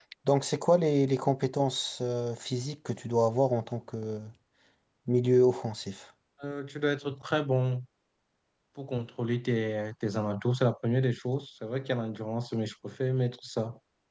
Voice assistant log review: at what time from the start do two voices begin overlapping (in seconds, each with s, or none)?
none